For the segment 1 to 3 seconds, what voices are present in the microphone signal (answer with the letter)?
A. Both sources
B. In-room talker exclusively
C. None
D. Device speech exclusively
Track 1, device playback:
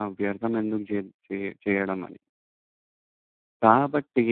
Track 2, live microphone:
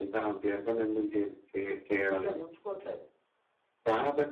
A